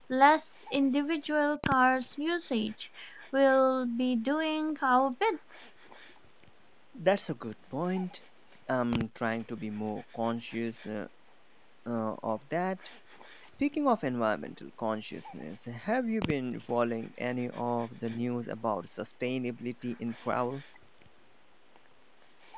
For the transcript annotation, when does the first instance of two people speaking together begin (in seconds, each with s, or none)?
none